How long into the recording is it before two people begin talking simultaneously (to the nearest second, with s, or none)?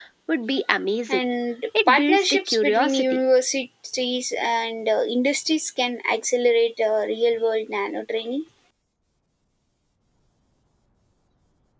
2 s